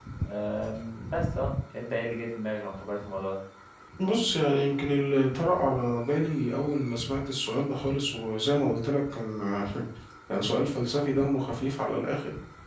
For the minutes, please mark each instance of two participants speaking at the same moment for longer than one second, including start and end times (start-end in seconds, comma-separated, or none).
none